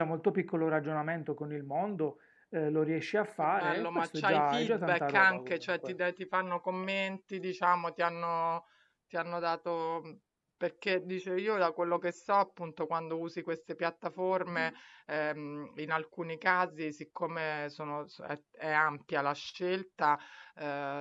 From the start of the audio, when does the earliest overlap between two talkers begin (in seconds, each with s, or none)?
3.4 s